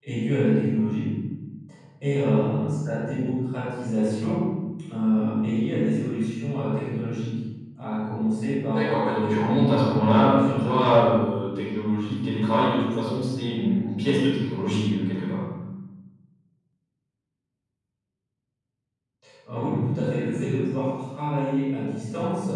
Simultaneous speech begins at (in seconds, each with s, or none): 8.7 s